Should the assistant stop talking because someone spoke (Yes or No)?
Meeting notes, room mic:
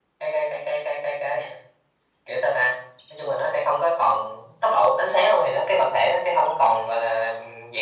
No